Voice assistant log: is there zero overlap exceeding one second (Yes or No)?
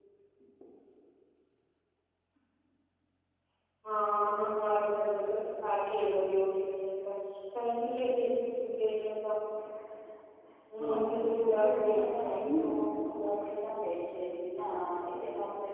No